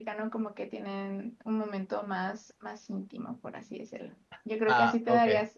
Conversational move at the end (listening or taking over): listening